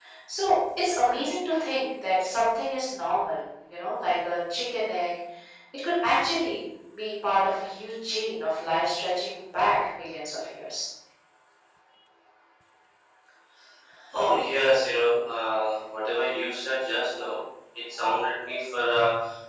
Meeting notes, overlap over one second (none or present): none